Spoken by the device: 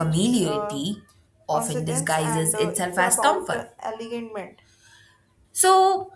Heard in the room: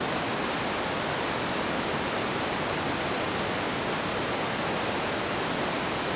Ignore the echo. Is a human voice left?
No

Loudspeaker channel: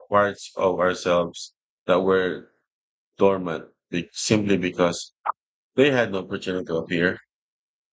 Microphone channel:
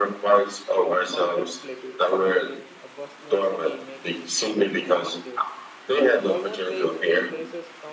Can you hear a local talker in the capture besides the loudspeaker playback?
Yes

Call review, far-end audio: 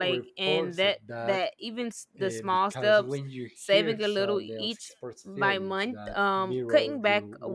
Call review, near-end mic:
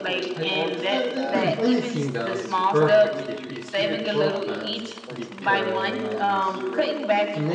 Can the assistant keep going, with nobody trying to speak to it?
No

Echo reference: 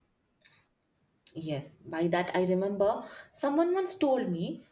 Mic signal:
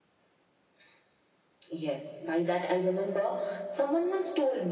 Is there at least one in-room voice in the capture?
No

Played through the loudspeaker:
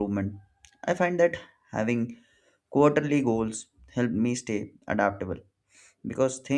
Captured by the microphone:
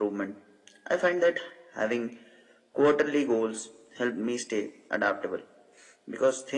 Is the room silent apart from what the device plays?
Yes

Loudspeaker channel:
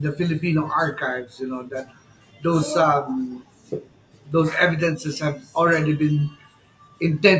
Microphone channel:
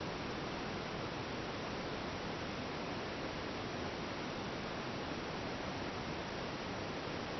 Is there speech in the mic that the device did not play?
No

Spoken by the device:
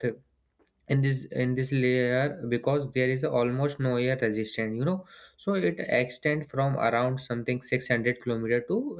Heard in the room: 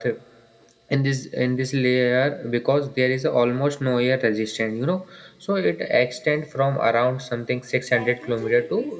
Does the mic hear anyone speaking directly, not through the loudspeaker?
Yes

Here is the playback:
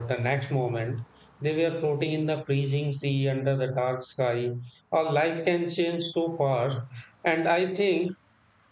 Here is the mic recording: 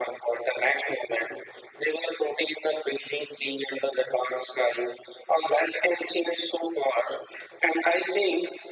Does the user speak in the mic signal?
No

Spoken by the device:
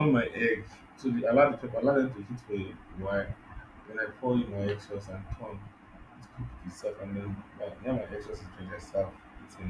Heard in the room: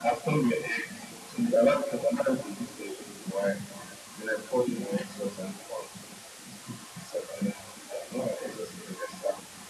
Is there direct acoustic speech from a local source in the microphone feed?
No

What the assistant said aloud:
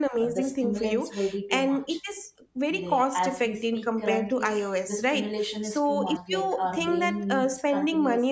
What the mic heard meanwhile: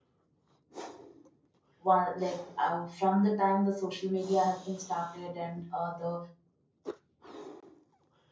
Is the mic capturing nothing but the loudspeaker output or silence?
No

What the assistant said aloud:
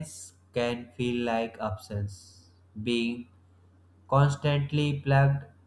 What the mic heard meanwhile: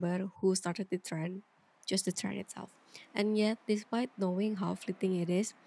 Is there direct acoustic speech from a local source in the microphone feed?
Yes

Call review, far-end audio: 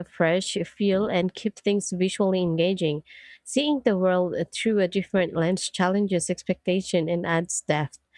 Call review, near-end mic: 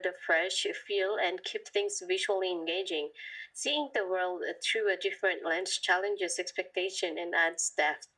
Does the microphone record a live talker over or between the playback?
No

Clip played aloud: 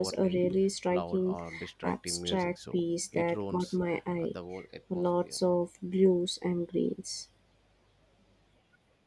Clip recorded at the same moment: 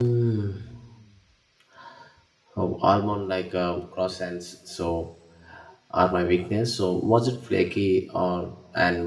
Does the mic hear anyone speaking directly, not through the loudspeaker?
Yes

